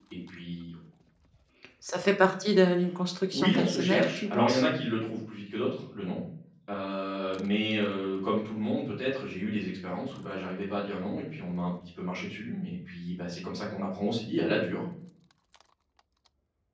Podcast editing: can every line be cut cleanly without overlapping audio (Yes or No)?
No